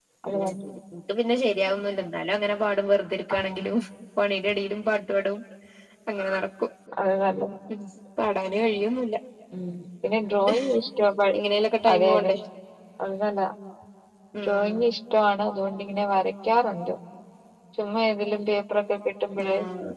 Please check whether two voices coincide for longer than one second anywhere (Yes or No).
No